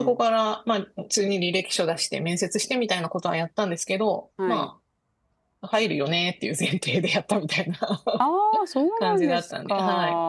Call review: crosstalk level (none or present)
present